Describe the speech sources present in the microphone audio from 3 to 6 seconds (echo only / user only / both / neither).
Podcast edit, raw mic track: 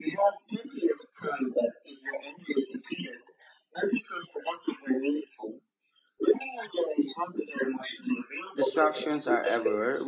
echo only